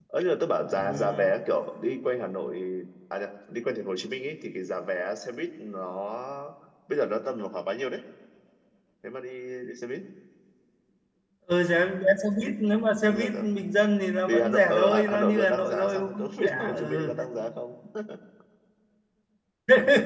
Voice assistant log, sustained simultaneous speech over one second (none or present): present